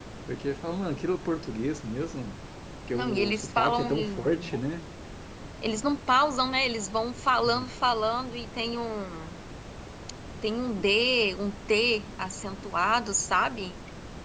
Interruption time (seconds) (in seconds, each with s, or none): 2.9 s